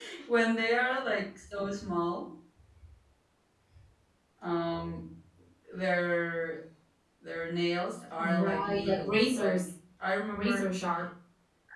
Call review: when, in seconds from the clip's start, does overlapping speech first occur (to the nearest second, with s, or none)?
8 s